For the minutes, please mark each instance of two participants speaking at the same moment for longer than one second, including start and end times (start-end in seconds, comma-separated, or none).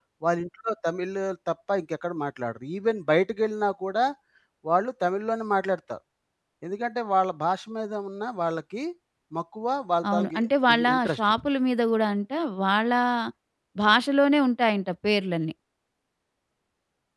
10.1-11.3